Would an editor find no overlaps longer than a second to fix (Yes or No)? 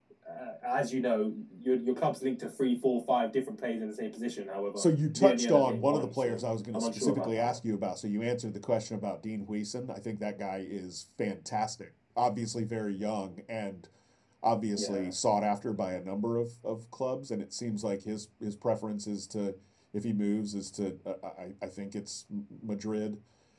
No